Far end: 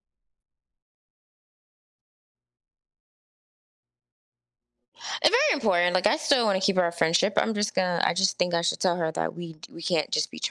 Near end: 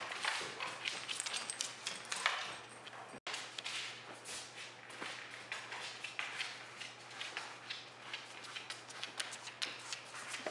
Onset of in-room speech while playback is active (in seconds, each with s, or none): none